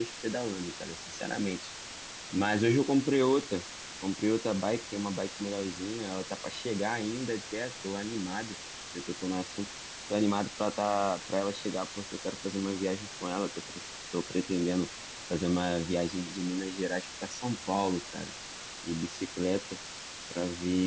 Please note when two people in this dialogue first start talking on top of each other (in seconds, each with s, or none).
none